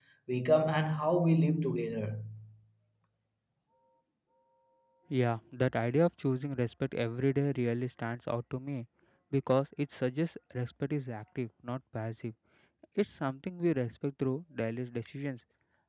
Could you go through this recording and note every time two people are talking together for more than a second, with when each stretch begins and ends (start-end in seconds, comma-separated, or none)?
none